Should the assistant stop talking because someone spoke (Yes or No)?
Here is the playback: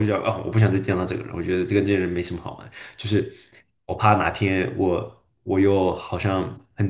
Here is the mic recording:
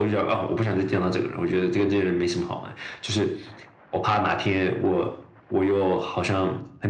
No